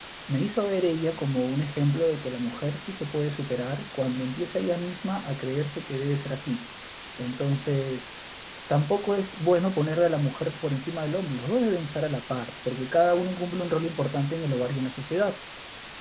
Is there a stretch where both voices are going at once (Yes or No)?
No